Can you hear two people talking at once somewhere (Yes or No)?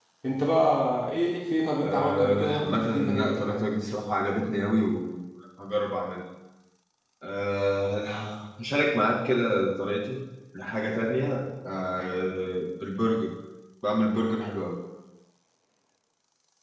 Yes